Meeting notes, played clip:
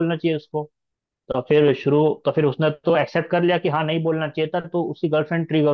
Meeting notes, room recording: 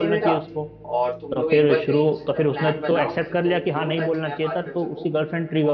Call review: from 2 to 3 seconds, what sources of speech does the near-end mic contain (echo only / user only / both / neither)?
both